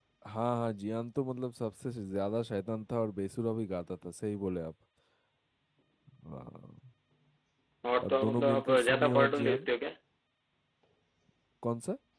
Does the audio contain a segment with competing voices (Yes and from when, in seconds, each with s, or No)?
Yes, from 8.0 s